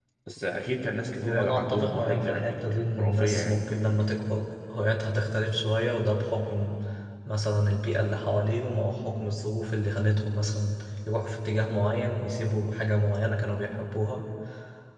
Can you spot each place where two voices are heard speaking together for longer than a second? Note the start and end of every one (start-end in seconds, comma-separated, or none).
1.2-3.6